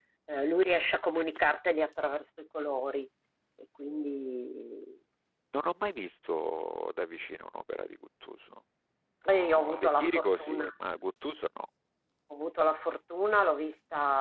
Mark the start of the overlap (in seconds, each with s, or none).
9.3 s